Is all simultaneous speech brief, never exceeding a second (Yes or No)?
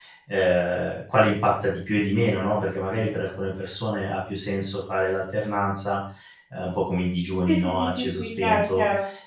No